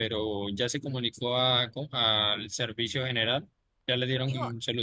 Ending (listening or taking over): taking over